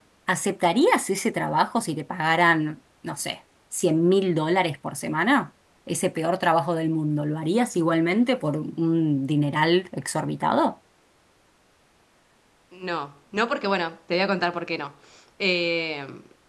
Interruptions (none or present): none